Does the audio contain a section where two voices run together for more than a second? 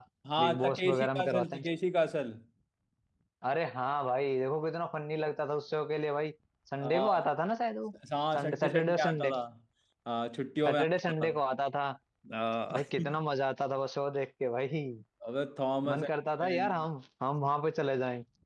Yes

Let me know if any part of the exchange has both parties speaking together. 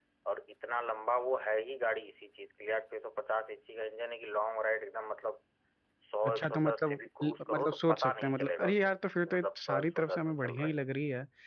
Yes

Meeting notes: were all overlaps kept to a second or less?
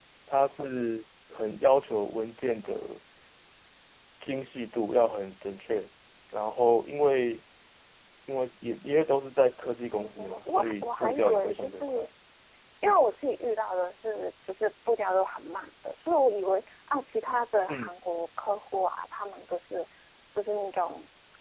No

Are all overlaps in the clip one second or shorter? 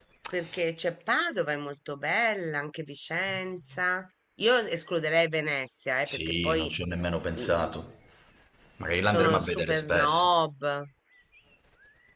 No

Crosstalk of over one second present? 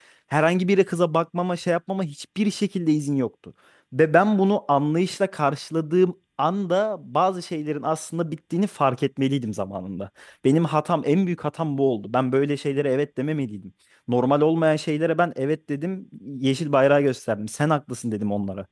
No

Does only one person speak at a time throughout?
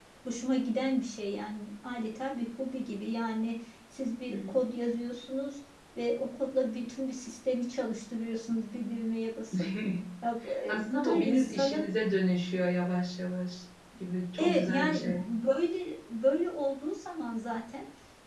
No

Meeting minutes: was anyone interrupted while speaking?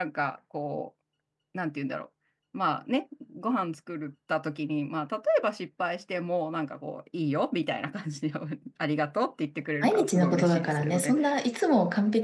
Yes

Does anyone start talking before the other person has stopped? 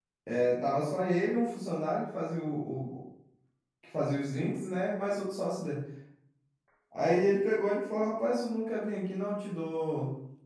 No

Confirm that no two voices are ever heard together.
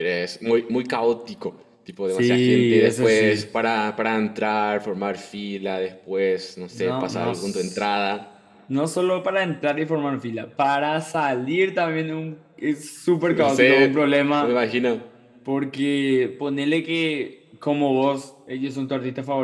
No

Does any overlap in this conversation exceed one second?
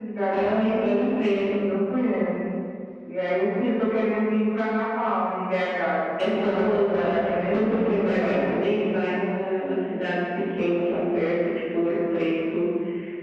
Yes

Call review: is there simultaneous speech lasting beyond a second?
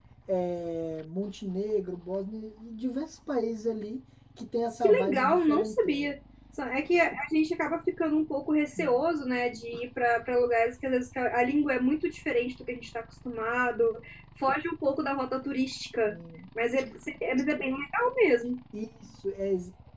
Yes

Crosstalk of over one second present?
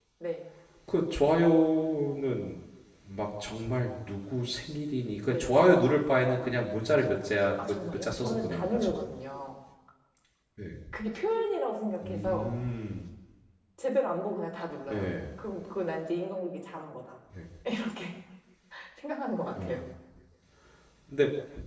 Yes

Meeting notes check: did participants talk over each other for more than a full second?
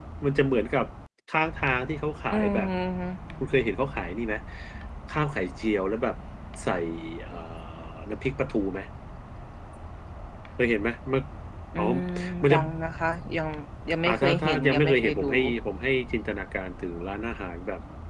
Yes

